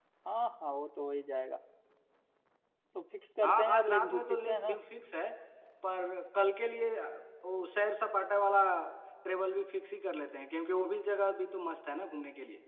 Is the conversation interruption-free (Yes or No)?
No